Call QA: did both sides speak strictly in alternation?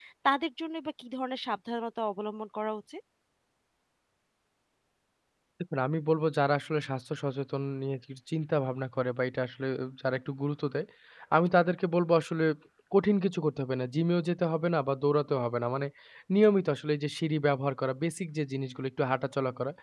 Yes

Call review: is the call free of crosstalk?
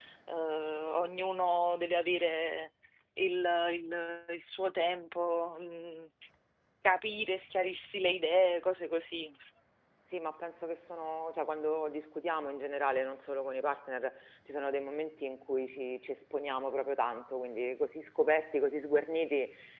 Yes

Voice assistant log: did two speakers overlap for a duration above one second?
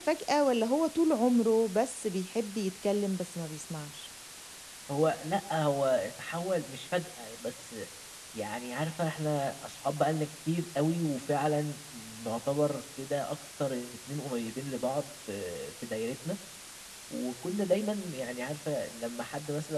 No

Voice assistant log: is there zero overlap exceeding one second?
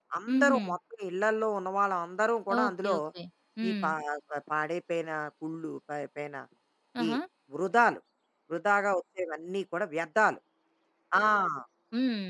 Yes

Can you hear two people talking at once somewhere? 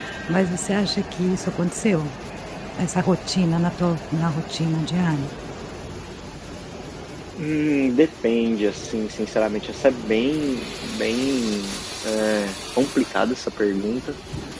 No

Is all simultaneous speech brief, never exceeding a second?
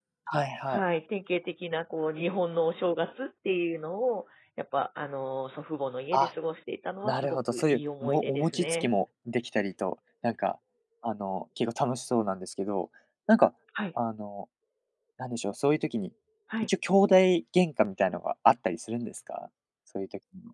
No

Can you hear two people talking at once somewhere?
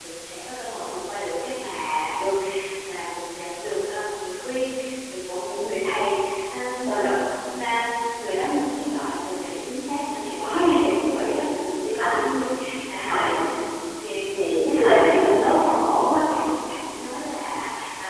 Yes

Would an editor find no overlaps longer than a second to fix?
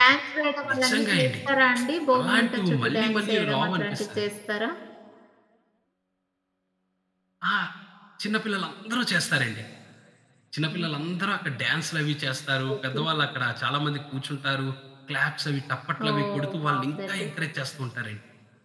No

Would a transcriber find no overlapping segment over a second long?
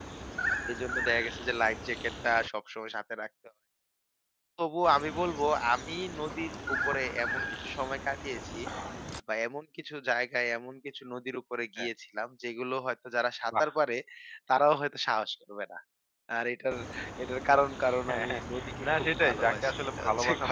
No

